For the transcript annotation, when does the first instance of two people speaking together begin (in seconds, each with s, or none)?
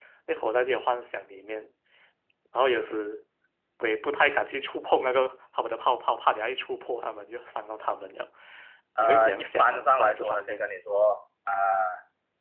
9.0 s